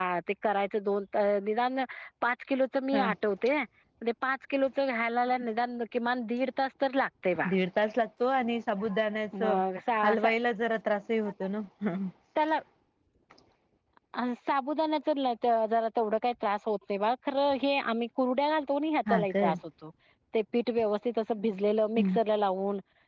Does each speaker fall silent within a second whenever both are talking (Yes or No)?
Yes